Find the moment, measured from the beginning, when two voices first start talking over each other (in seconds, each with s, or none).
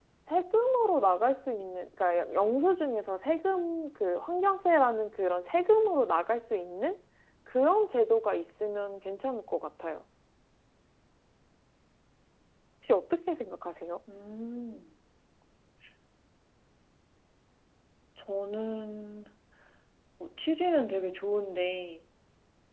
none